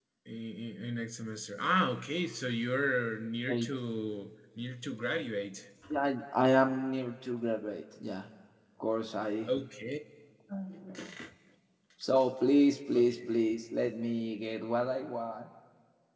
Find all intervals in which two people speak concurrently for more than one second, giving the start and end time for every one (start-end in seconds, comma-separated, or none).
none